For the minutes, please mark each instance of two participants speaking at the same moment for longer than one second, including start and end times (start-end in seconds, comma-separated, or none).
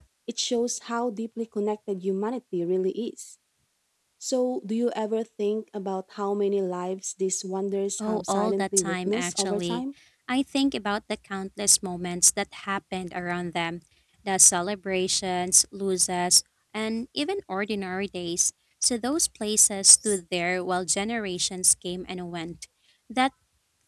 8.0-9.8